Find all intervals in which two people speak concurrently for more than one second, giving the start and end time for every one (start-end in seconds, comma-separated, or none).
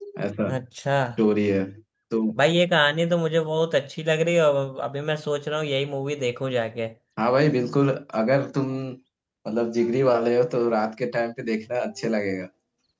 none